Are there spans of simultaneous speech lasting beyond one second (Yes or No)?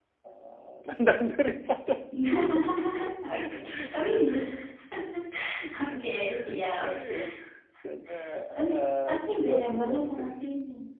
Yes